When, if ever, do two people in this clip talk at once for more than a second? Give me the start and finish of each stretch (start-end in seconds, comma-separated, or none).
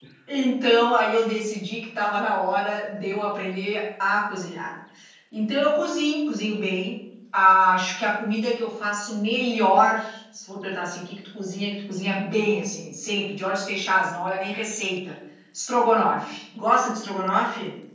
none